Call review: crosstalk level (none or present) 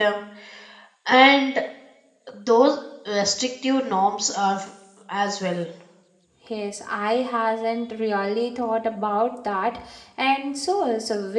none